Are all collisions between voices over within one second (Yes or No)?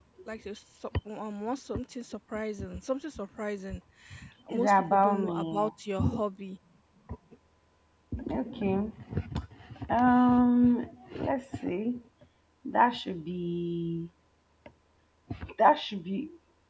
No